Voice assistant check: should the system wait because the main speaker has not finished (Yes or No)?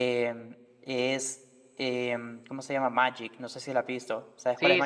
No